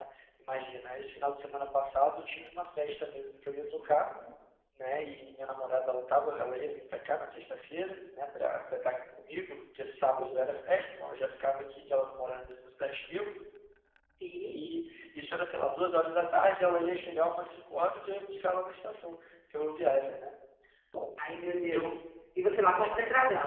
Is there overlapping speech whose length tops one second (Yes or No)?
No